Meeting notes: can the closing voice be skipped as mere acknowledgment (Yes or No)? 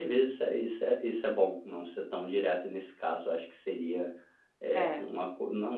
Yes